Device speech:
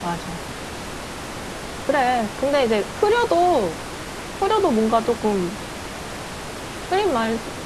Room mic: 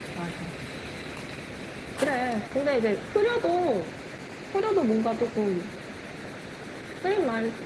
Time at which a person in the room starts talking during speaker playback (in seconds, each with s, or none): none